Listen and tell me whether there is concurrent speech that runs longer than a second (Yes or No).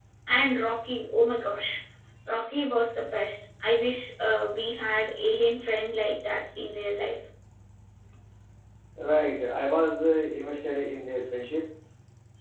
No